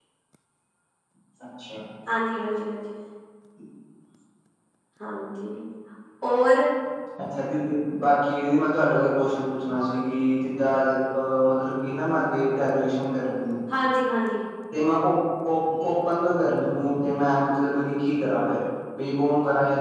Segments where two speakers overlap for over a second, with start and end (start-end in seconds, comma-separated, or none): none